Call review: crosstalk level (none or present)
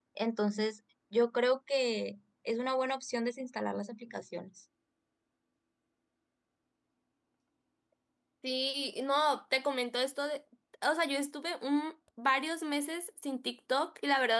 none